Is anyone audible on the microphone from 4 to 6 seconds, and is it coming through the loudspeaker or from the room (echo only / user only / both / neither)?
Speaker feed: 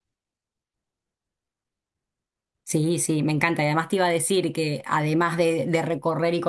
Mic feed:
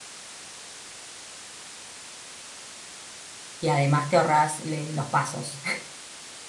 user only